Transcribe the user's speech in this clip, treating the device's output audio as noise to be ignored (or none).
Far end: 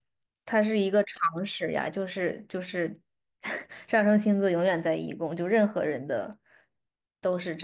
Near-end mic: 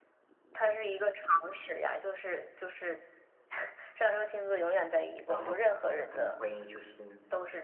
然后我可能会就是